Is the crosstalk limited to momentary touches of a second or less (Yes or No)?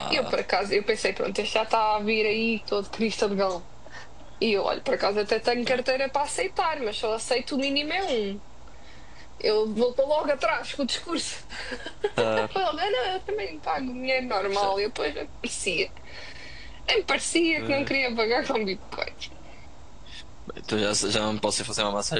Yes